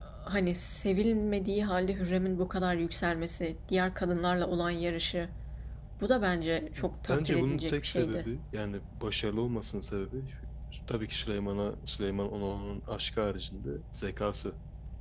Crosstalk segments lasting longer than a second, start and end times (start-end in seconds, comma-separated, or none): 6.8-8.3